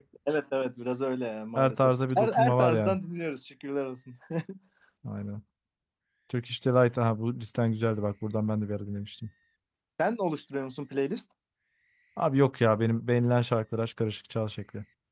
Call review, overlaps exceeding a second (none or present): present